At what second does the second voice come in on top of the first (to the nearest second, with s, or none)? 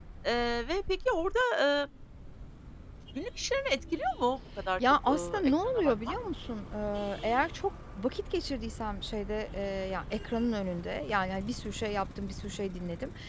5 s